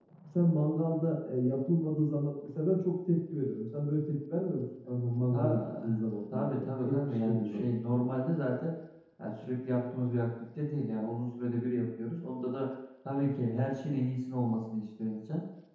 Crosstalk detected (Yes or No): Yes